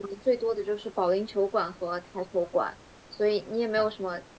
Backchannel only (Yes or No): Yes